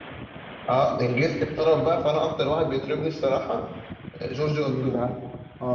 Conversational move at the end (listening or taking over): taking over